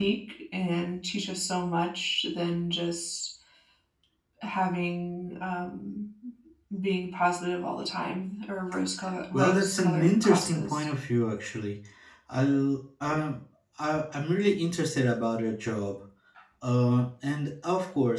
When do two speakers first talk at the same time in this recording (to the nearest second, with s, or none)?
9 s